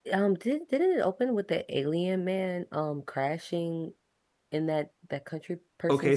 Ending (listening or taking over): taking over